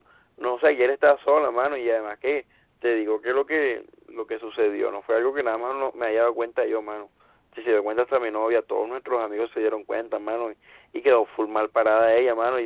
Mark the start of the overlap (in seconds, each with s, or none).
none